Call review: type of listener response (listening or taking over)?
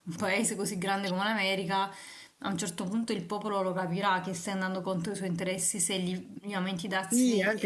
taking over